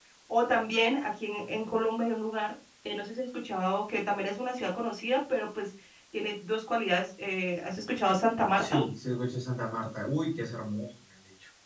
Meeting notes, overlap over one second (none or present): none